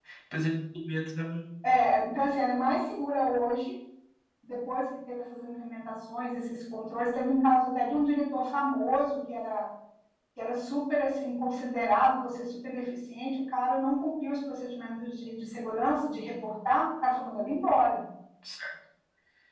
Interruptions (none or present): none